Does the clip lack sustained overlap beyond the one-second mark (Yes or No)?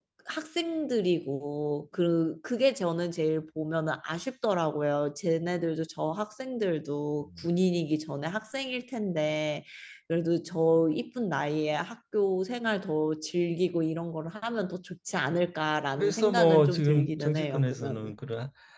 No